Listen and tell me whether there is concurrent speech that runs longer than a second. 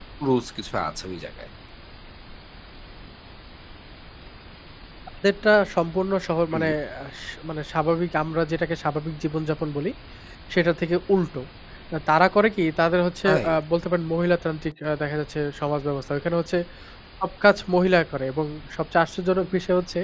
No

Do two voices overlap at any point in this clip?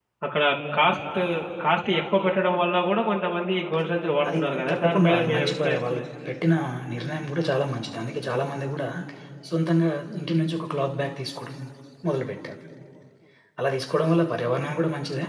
Yes, from 4.3 s

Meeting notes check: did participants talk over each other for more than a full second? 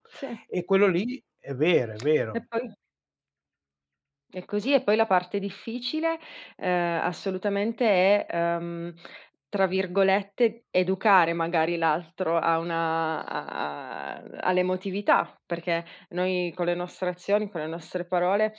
No

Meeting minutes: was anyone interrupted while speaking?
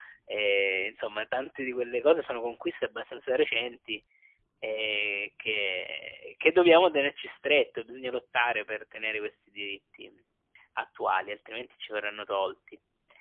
No

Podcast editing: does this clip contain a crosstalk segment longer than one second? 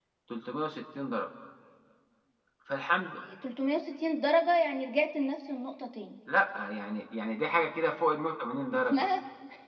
No

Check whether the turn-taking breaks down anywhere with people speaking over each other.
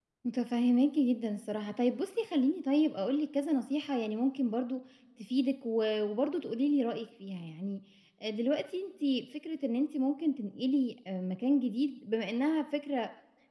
No

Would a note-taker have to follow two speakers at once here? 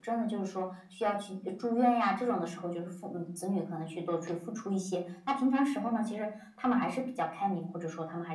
No

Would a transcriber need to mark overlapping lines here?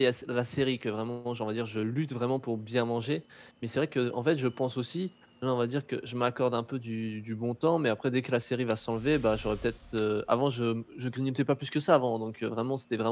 No

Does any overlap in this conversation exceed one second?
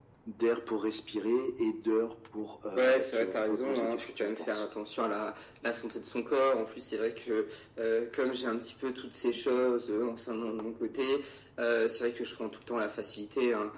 Yes, from 2.8 s

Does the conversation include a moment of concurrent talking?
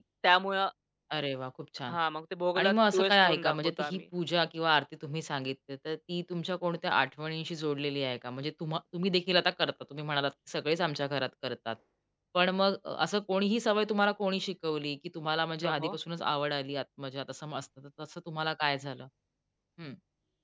Yes, from 2.6 s

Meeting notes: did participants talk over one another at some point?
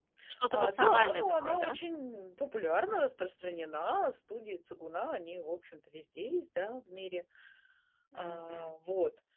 Yes, from 0.5 s

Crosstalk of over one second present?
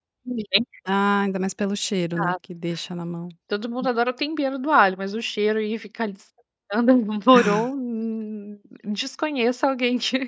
No

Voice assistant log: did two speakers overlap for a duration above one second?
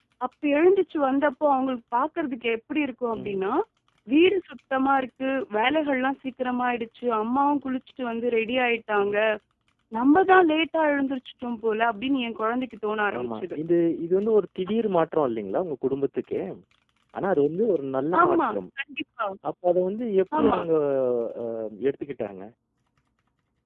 No

